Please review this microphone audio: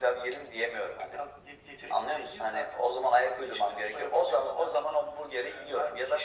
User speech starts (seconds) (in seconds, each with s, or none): none